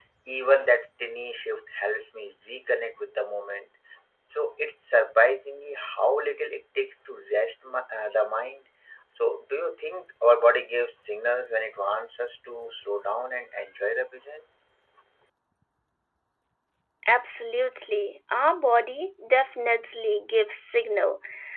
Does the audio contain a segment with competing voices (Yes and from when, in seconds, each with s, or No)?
No